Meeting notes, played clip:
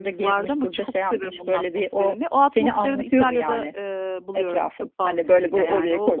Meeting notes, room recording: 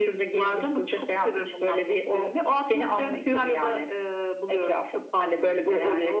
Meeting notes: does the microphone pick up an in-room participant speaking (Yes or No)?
No